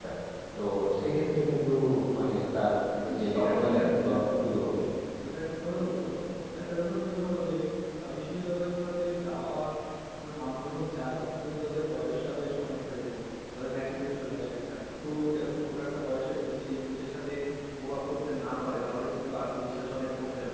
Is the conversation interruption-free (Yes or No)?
No